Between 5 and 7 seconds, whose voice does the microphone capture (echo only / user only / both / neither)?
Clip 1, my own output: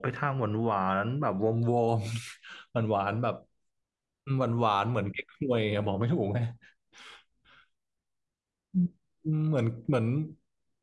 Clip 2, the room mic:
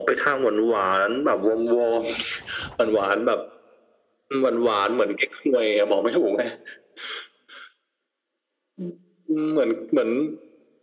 echo only